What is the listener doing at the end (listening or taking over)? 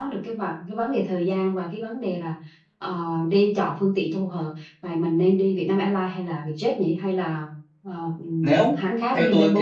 taking over